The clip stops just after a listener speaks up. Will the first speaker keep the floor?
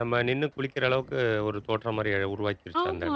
No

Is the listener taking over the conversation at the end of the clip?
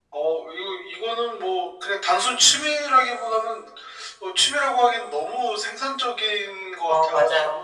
Yes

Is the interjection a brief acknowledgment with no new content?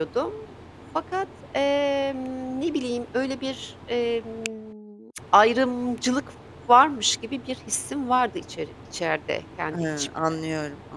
No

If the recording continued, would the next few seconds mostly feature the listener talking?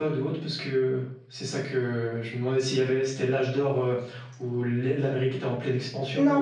Yes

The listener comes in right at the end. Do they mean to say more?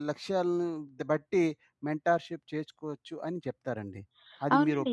Yes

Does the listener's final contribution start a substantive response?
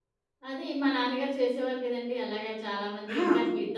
No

